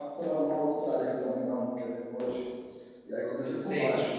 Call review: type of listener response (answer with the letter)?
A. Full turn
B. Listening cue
B